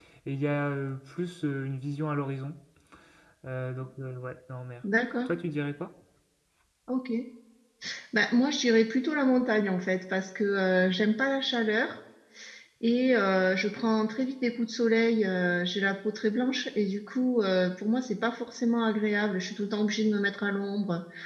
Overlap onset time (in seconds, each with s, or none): none